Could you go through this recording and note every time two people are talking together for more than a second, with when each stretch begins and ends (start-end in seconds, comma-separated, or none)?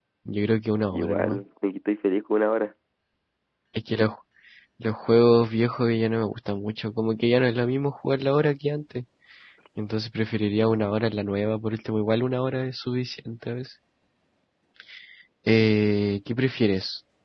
none